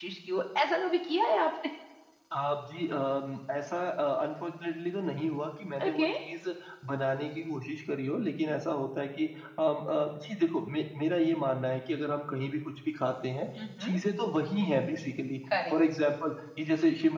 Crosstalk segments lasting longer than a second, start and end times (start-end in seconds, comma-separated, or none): none